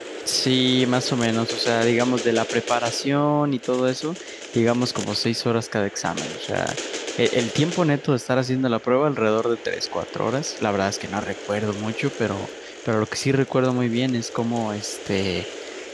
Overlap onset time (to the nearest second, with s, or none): none